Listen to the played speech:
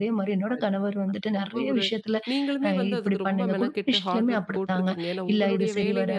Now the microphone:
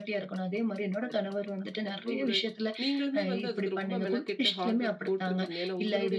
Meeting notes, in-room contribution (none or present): none